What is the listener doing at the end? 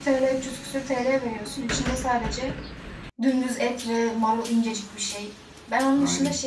listening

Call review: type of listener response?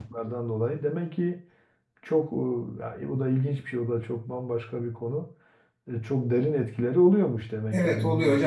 taking over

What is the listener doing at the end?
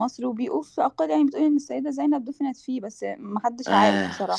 taking over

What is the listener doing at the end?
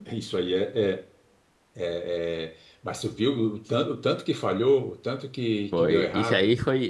taking over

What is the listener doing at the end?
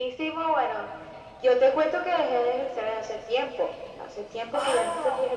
listening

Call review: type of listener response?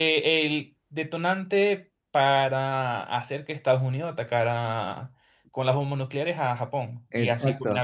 taking over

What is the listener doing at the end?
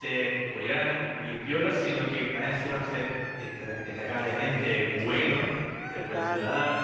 listening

